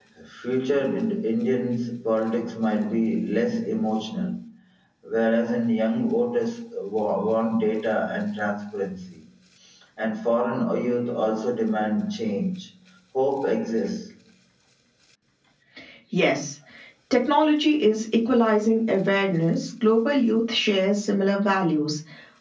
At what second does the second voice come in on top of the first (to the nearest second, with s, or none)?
none